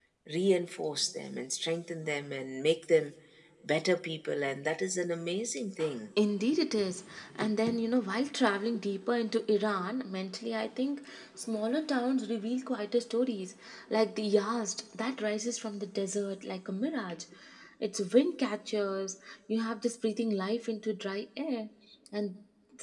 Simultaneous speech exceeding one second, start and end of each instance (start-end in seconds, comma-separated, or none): none